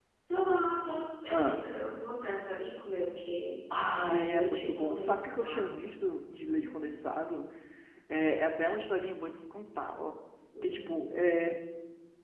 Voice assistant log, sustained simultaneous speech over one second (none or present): present